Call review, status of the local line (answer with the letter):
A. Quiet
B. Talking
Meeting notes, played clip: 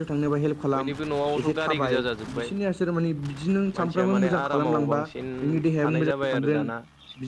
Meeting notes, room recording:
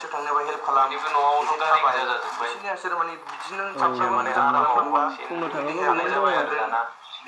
B